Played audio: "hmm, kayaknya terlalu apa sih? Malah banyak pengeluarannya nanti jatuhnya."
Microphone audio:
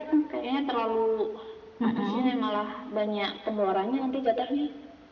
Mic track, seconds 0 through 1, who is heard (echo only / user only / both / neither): echo only